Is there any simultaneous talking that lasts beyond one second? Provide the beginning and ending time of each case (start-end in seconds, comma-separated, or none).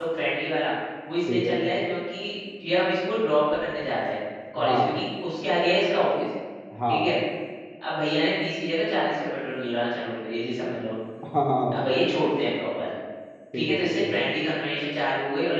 none